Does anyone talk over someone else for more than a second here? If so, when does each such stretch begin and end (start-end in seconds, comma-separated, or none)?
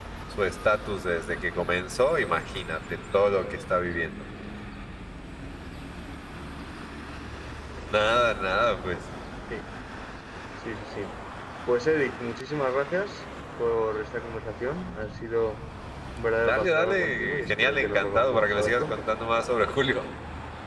16.5-19.0